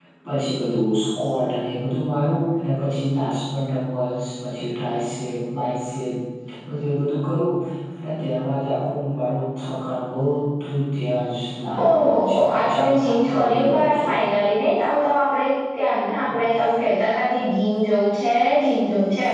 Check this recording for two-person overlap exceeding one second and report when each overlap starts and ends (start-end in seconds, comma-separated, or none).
11.8-14.1